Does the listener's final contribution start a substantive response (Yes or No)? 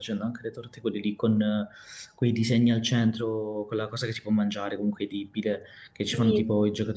No